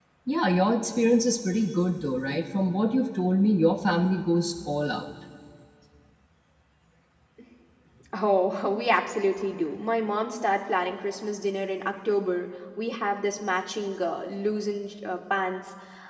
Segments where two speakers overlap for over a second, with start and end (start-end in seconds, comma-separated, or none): none